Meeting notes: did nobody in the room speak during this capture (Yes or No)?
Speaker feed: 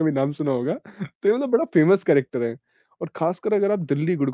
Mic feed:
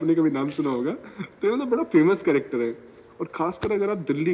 Yes